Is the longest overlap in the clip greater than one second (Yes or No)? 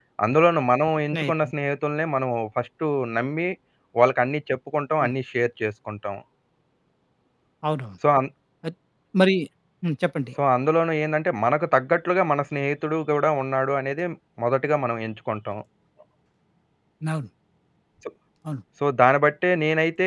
No